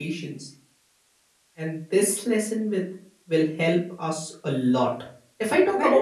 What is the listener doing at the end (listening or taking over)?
listening